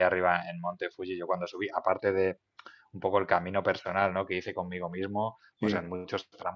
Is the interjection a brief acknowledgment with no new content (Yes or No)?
Yes